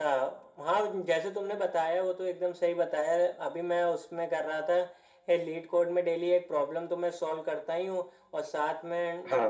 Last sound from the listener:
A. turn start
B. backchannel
B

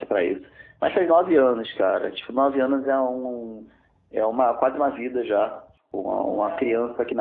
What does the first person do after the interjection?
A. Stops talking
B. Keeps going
B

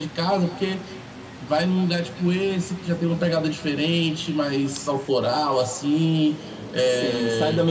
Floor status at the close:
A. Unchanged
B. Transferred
B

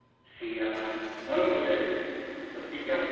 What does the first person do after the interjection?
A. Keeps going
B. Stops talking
A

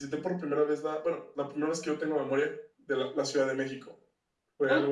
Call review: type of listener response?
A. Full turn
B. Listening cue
A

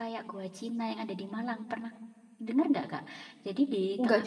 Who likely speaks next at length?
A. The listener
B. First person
B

